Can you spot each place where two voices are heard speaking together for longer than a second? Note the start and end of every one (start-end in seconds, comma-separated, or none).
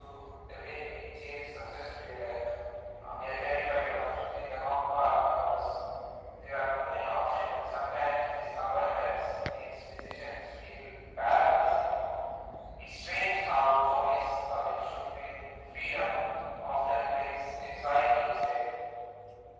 none